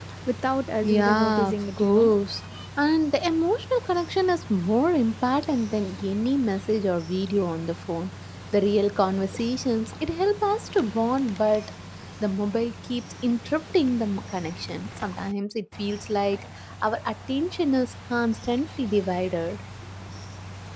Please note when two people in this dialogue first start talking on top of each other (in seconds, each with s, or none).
0.8 s